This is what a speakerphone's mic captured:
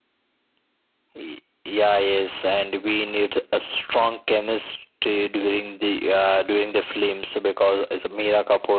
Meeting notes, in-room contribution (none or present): none